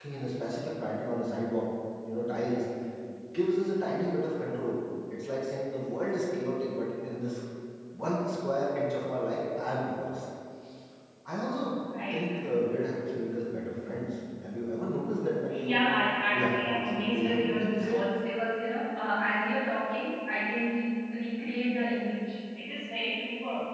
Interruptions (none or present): present